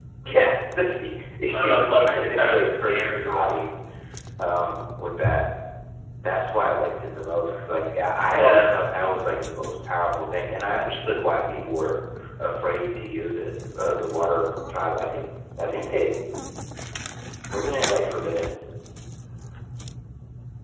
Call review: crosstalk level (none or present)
present